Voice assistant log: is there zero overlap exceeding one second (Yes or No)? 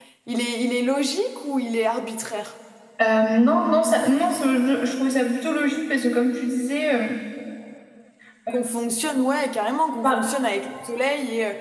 Yes